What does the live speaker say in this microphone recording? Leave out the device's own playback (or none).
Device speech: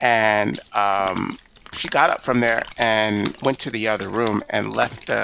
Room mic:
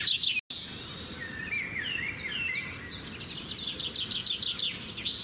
none